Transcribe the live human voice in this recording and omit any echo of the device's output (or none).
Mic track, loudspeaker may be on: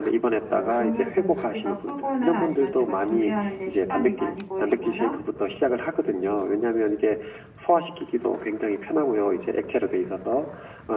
어 너무 좀 부피가 크거나 아니면 제가 준비하는 데 시간이 많이 걸리거나